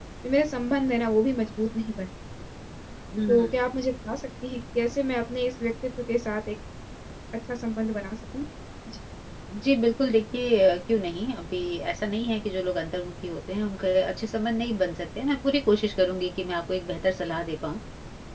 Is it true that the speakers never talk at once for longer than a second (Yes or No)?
Yes